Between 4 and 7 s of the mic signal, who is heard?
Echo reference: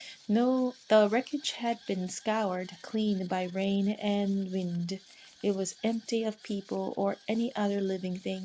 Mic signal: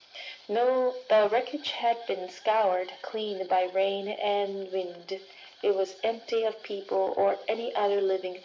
echo only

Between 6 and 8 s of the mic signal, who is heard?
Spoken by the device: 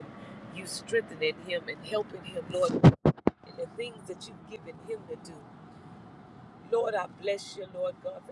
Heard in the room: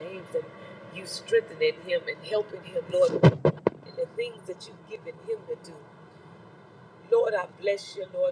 echo only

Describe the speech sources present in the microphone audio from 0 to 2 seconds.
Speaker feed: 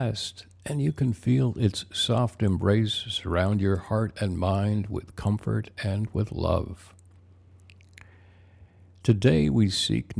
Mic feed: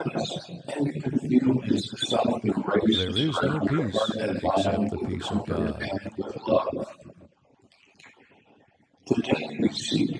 echo only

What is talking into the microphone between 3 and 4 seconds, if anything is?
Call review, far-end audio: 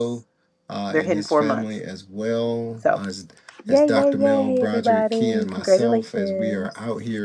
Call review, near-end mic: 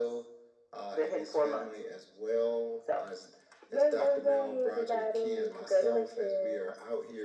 echo only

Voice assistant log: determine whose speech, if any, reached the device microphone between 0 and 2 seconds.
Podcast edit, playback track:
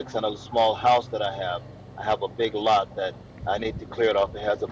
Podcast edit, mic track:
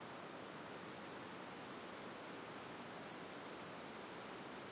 neither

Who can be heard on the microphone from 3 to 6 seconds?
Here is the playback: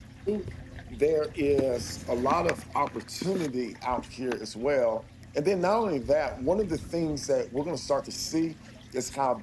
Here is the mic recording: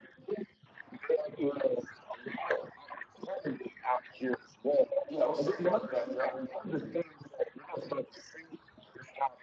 both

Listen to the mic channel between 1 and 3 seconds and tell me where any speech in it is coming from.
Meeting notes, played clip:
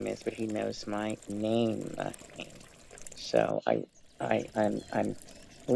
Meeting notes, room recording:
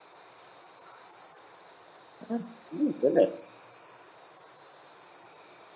user only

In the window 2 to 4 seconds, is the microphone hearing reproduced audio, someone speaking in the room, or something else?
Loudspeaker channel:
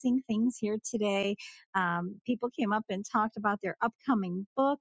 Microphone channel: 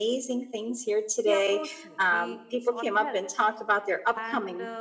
both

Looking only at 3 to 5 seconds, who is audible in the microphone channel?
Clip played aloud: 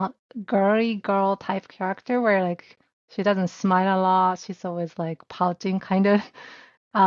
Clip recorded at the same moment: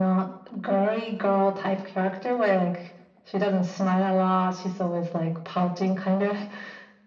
echo only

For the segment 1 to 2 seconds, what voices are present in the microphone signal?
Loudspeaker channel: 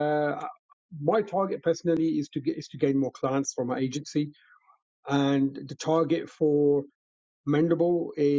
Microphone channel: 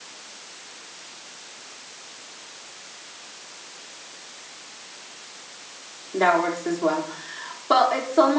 neither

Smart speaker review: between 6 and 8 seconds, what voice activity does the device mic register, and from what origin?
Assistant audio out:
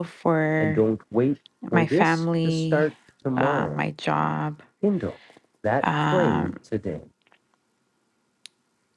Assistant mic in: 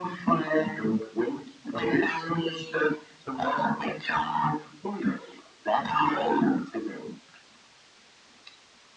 echo only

